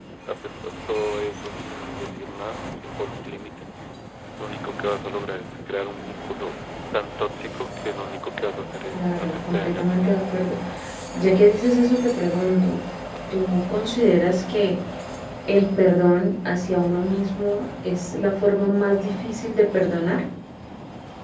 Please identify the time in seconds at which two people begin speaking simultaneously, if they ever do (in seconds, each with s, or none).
8.9 s